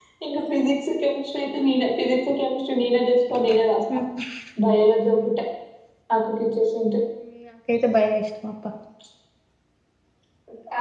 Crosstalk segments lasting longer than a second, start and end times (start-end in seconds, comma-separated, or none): none